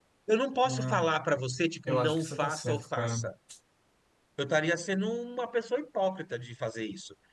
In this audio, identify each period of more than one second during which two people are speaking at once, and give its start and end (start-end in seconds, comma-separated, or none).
1.9-3.3